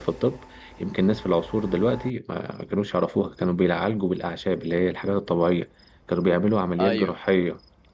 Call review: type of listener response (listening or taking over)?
listening